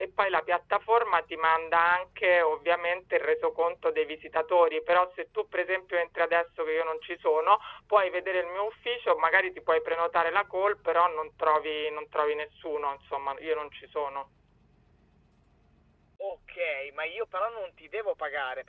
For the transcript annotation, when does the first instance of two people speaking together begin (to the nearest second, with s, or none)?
none